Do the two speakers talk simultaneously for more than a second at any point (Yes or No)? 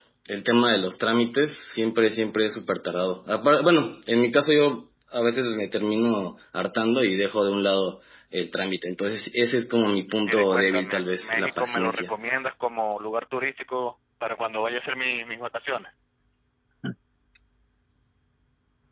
Yes